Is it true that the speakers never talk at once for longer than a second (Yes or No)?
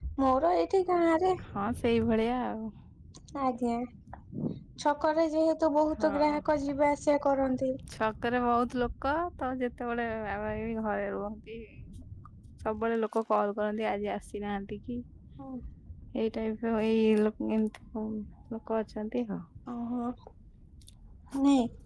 Yes